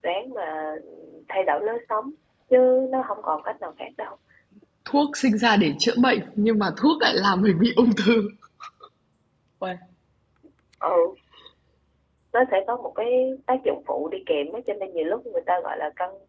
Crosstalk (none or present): none